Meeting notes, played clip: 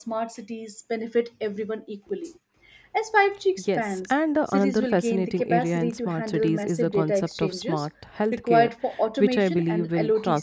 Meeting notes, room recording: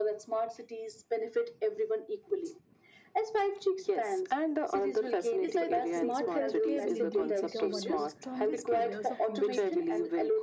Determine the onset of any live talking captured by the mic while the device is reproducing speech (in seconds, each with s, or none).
5.4 s